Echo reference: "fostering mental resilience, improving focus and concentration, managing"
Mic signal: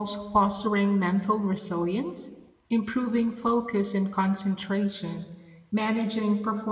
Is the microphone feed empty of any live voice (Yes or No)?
Yes